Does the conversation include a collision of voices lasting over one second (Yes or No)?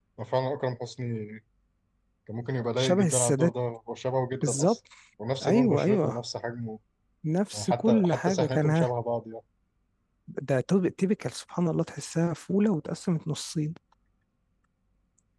Yes